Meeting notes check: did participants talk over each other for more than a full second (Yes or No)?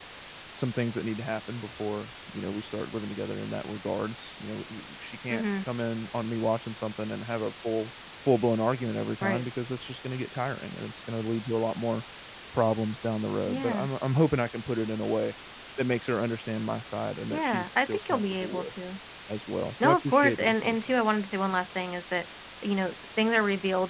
Yes